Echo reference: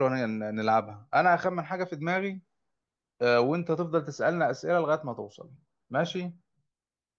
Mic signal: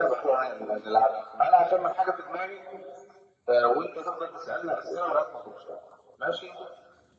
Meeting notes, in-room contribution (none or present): none